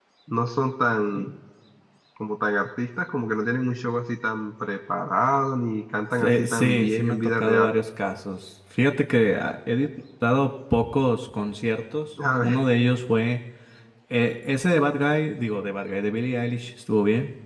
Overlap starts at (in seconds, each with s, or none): 6.2 s